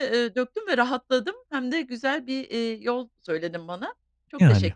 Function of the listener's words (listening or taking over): taking over